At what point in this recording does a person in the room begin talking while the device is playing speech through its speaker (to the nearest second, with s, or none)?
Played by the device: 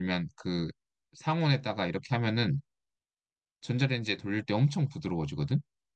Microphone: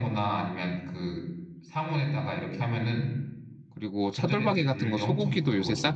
4 s